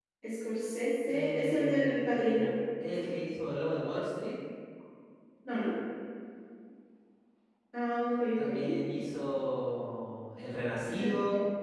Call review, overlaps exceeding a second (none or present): present